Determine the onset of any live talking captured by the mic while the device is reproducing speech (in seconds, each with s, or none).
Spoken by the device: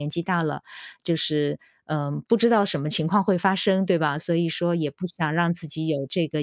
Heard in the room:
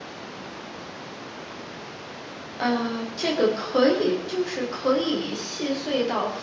2.6 s